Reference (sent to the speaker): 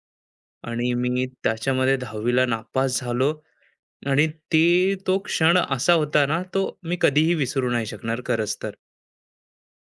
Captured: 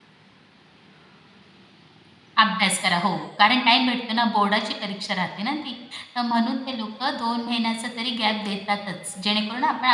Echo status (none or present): none